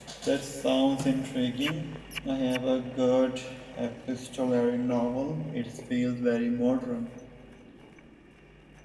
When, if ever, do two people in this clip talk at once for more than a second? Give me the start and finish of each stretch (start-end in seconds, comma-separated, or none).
none